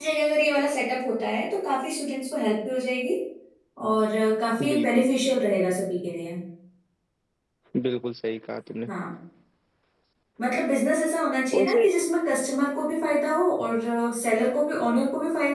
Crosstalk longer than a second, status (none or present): none